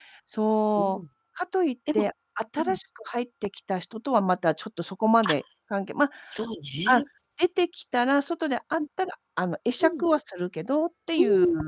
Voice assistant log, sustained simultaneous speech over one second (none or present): none